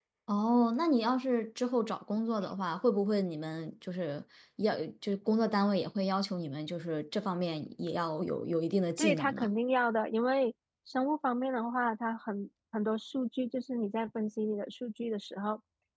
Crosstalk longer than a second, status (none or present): none